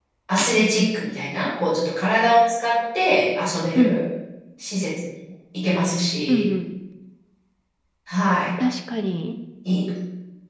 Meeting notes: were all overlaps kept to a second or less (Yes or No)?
Yes